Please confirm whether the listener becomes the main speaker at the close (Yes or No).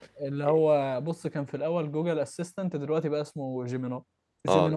Yes